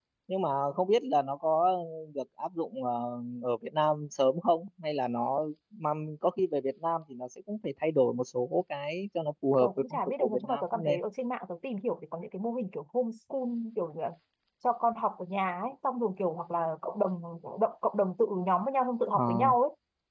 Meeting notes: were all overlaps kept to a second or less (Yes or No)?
No